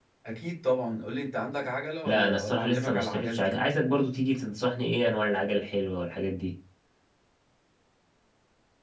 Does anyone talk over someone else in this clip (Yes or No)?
Yes